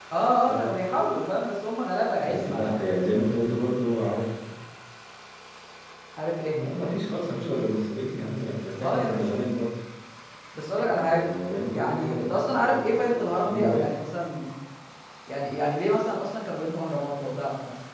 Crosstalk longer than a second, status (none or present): present